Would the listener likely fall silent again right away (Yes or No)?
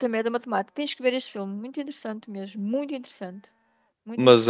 No